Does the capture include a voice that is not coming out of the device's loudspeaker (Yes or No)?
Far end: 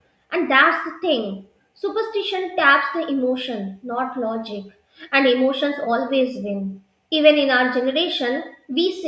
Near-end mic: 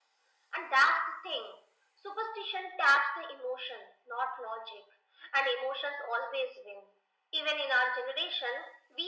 No